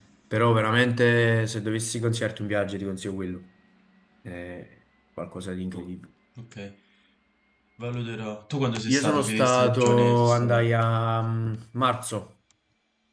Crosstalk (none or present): present